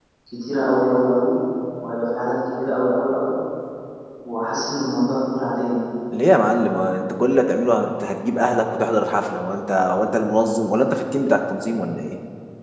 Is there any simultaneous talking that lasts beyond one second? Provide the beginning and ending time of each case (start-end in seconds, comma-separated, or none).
none